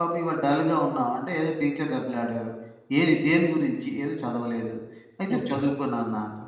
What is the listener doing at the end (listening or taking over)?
listening